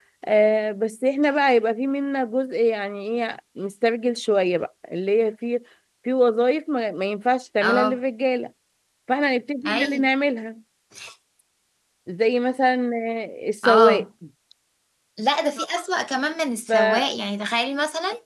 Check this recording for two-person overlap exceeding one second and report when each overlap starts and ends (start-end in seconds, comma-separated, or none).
none